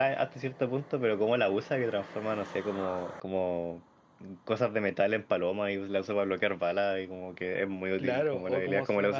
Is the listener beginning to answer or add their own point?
Yes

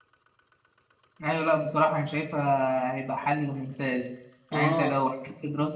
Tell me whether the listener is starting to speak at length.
No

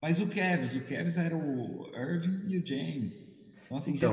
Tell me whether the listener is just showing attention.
No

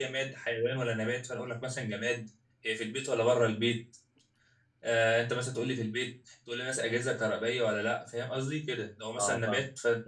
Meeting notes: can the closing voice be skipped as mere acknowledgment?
Yes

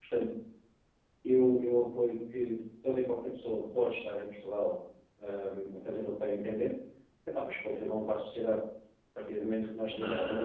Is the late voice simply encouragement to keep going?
Yes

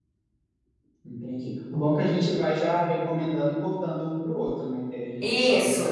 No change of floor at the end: No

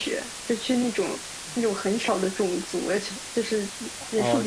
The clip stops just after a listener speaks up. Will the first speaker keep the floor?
Yes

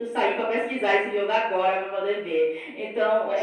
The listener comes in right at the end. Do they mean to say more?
Yes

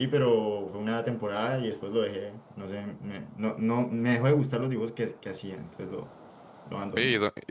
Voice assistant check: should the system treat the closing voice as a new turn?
Yes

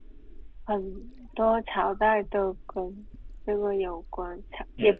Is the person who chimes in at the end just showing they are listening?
No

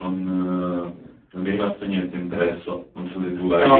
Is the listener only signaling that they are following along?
No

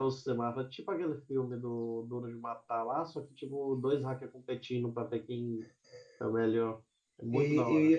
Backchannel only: No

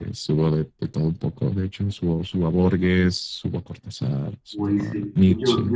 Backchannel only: No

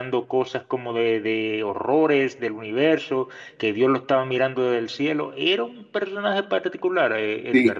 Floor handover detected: Yes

